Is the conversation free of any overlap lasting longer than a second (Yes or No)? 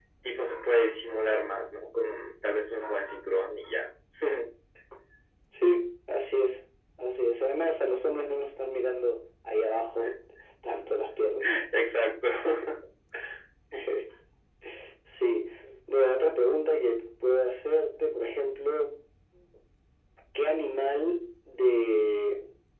Yes